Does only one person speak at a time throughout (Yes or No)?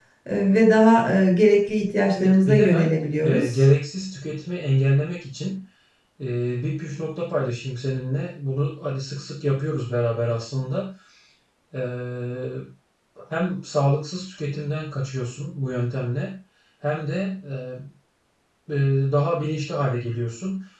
No